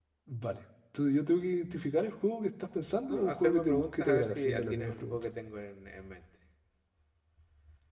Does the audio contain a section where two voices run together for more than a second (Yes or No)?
Yes